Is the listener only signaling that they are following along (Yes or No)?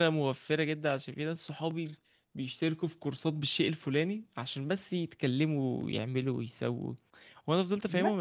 Yes